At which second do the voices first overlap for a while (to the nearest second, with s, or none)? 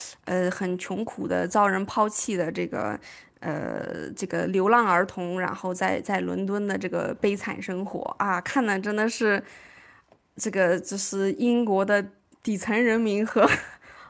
none